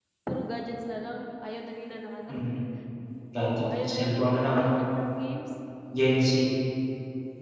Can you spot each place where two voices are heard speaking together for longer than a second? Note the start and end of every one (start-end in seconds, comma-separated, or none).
3.4-4.7